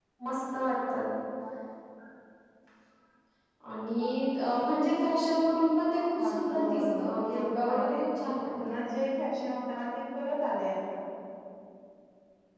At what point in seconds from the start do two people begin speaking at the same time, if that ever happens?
6 s

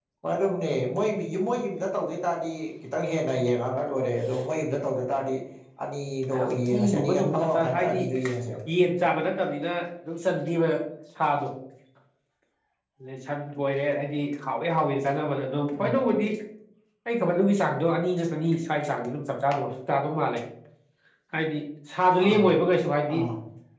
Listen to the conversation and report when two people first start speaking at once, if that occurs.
6 s

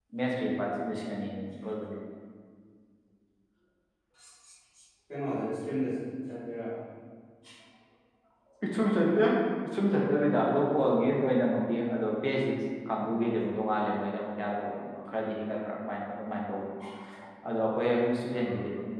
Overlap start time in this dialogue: none

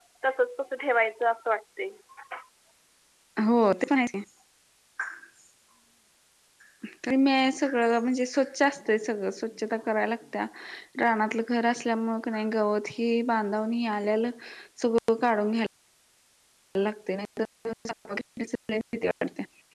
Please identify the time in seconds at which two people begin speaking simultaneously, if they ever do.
none

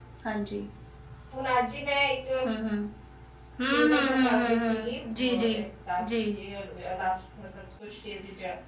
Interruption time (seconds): 4 s

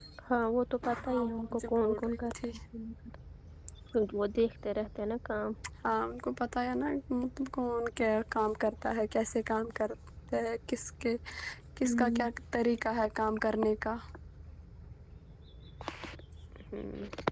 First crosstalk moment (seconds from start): 1 s

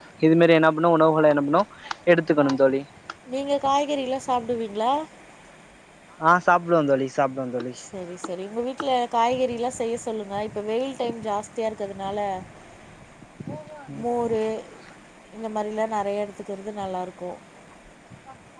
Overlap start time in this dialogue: none

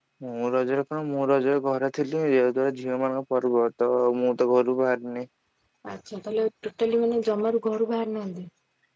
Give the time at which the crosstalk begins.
none

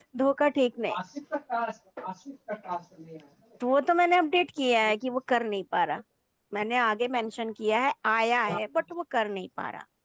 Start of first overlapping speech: none

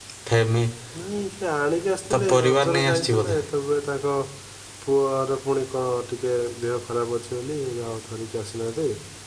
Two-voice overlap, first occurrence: 2 s

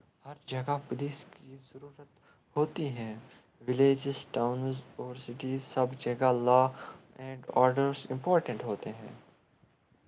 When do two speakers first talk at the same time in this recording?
none

